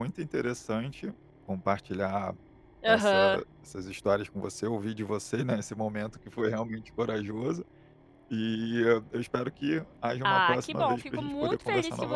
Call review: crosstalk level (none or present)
present